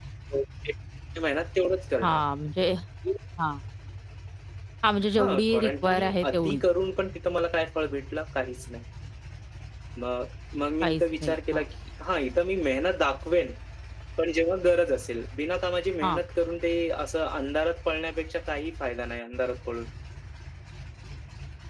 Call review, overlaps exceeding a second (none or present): present